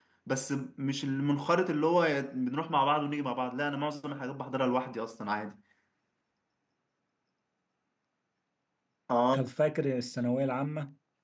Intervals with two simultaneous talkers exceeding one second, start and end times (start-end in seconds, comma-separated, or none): none